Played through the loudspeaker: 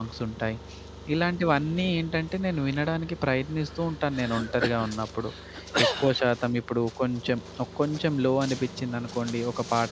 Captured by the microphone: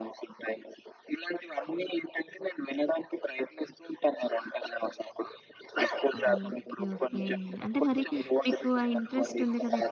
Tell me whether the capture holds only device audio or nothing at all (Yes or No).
No